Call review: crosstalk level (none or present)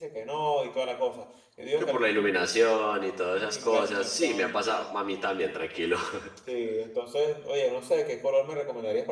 present